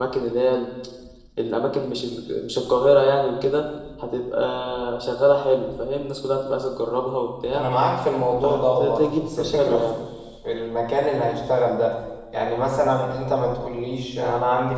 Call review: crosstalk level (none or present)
present